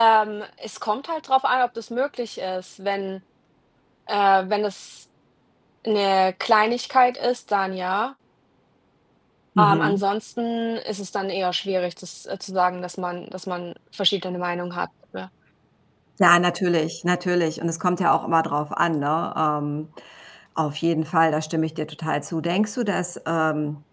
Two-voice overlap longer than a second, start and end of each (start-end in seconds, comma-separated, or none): none